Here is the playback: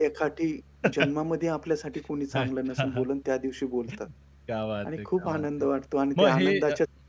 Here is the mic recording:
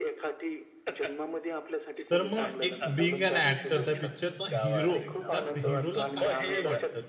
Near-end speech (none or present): present